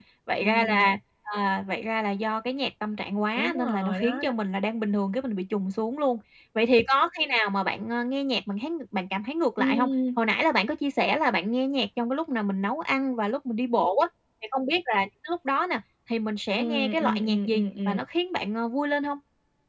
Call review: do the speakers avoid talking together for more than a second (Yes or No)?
No